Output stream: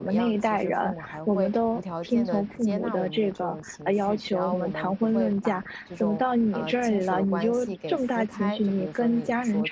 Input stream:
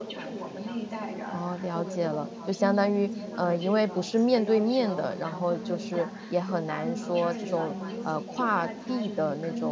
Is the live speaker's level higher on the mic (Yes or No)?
Yes